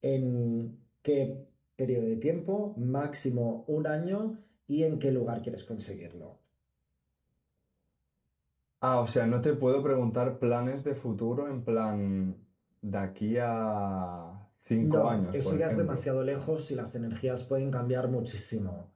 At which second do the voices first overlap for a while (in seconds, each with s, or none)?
14.8 s